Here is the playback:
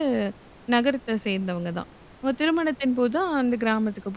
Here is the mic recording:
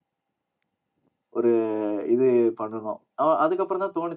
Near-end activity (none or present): present